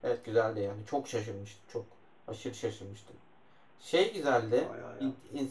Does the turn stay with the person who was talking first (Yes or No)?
Yes